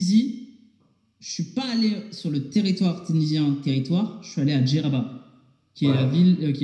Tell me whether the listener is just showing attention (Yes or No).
Yes